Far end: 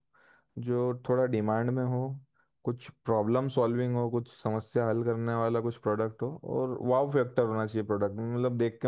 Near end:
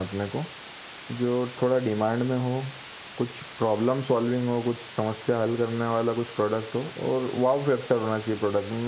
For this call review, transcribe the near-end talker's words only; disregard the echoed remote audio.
none

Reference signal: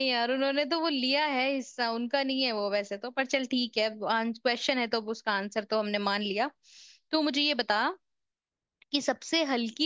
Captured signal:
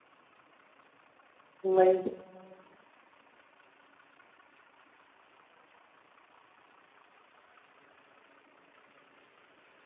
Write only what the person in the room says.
नहीं

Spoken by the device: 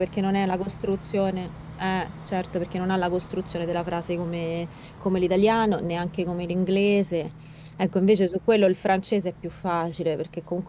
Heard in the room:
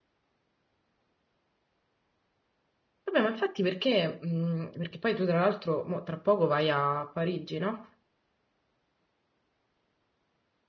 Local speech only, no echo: Vabbè, ma infatti perché, mh, perché poi tu tra l'altro mo tra poco vai a Parigi, no?

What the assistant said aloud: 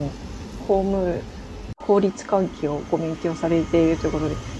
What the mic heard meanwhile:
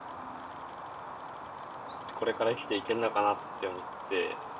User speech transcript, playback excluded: これから生きていけるのかなって思って、

